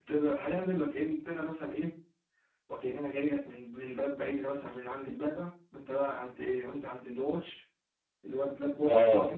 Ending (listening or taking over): taking over